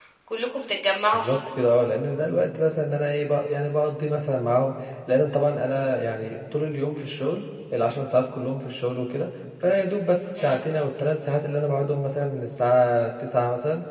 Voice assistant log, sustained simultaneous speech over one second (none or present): none